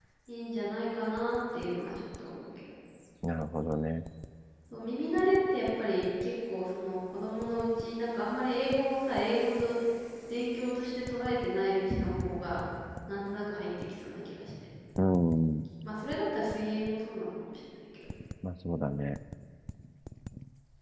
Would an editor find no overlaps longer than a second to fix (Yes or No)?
Yes